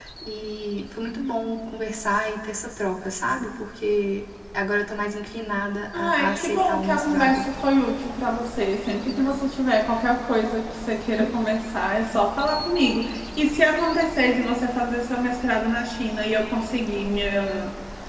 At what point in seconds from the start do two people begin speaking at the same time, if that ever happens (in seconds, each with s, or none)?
5.9 s